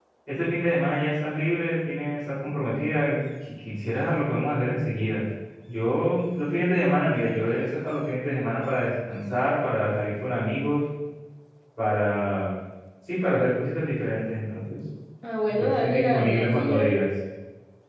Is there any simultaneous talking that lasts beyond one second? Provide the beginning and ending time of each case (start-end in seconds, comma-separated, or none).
15.5-16.9